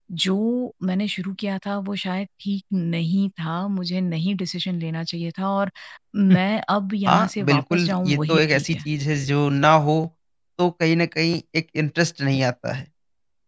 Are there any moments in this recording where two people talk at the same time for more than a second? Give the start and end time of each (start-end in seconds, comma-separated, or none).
7.1-8.8